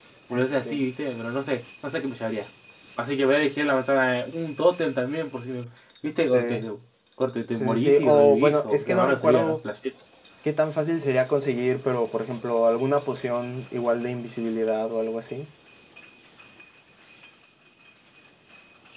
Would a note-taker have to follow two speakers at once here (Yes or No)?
Yes